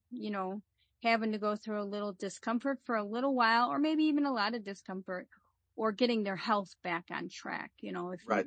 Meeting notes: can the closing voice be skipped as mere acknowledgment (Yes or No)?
No